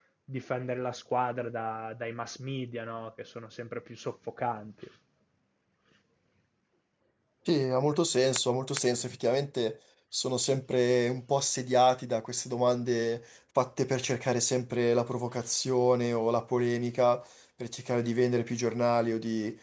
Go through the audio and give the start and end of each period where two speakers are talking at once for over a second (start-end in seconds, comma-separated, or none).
none